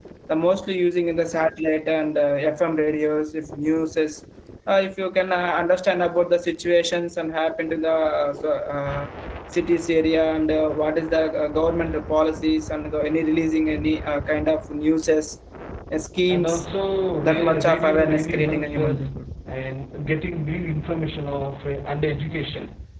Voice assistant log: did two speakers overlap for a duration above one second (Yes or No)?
Yes